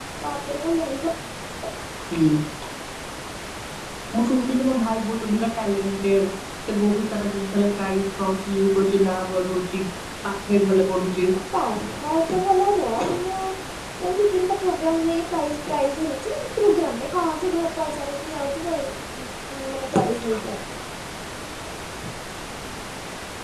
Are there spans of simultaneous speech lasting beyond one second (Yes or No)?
No